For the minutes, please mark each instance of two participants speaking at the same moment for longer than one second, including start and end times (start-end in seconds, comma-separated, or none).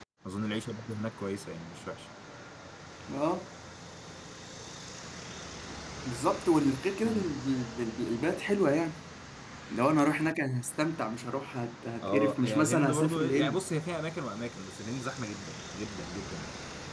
12.0-13.6